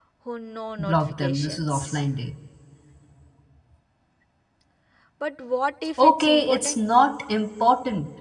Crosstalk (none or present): present